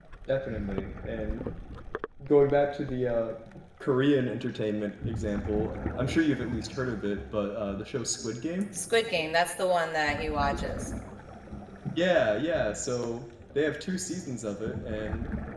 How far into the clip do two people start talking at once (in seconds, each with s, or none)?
none